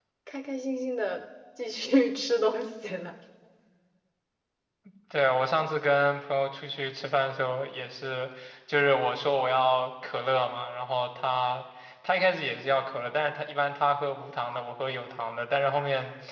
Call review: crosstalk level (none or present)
none